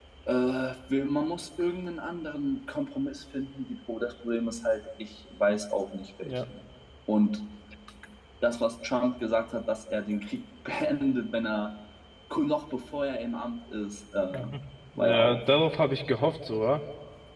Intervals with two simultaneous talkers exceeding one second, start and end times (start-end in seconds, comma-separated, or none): none